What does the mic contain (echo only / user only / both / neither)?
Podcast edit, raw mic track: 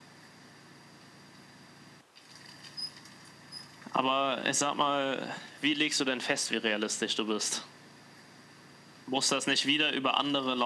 echo only